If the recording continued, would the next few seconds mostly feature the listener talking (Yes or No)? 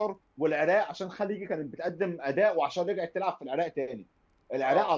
No